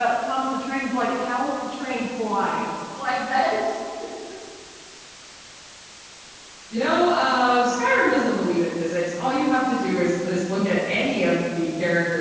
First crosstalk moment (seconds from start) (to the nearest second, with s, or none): none